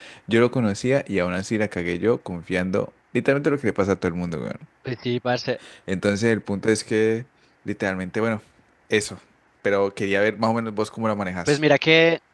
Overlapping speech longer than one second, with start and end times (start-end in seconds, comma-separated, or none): none